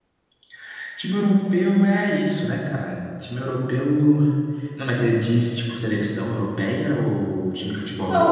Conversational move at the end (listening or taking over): taking over